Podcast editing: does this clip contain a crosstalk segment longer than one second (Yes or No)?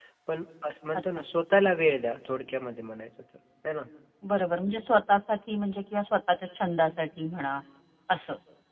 No